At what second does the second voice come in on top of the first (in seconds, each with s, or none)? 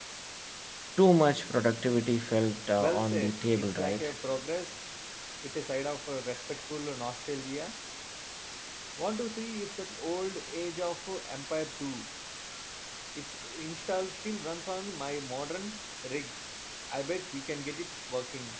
2.8 s